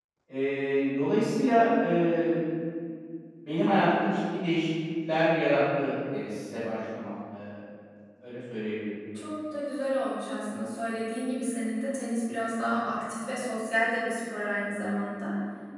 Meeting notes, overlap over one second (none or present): none